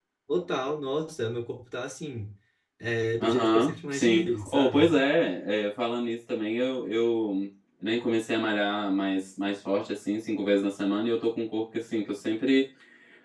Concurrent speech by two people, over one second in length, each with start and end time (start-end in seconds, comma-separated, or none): 3.2-4.9